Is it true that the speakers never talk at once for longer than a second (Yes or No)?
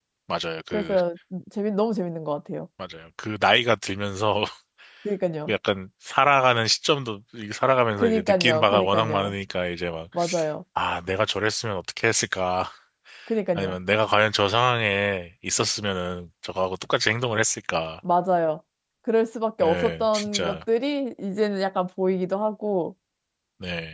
No